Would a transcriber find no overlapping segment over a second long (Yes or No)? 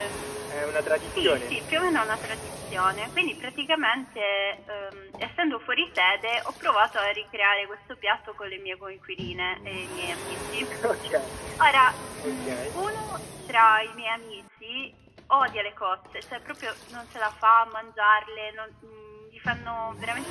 Yes